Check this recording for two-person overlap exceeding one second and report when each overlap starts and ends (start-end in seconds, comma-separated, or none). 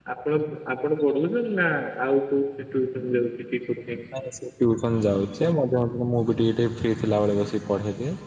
none